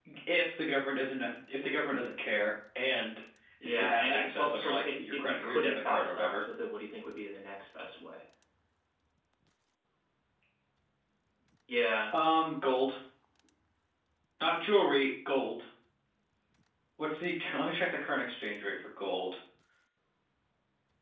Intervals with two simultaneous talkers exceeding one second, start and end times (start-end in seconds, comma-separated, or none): 3.6-6.4